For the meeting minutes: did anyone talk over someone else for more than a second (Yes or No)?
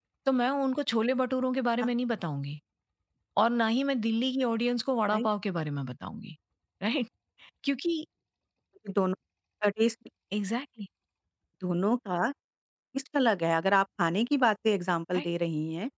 No